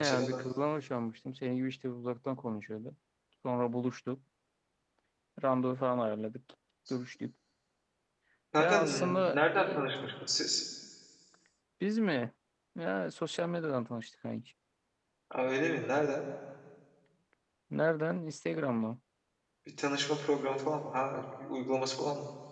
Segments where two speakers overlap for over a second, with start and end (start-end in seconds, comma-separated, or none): 8.6-9.8